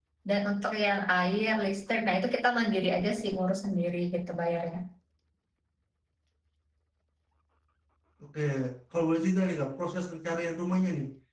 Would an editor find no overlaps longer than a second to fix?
Yes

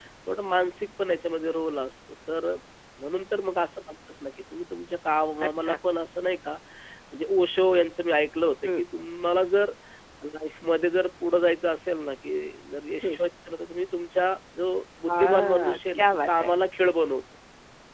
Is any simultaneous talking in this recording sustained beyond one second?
Yes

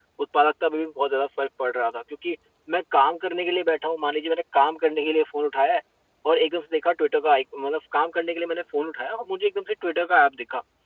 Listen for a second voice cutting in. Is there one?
No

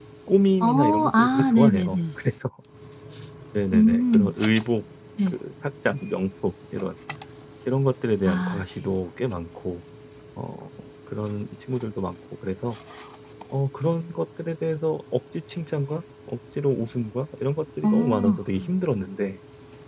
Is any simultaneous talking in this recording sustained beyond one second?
Yes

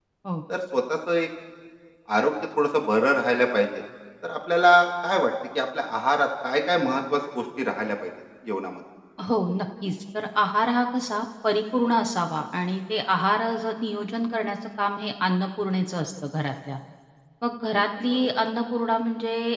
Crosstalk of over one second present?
No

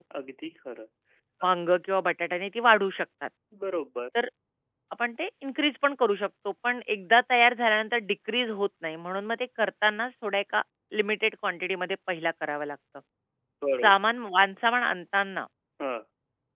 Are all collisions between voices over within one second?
Yes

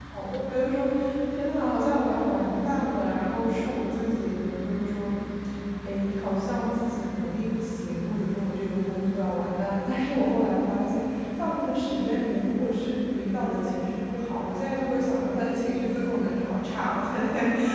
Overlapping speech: No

